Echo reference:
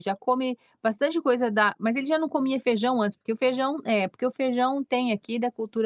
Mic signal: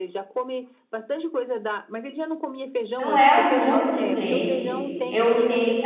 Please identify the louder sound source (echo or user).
user